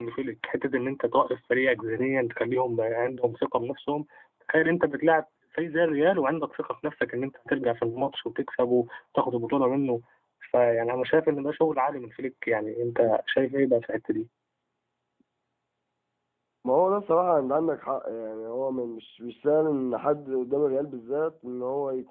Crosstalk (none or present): none